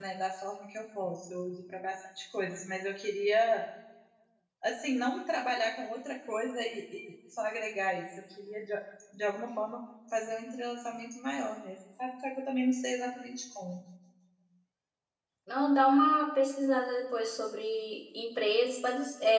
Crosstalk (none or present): none